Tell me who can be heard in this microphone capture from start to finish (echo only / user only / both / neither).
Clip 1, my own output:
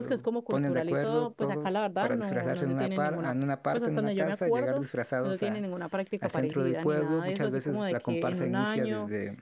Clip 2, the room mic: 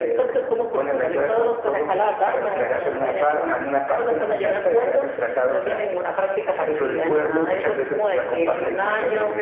echo only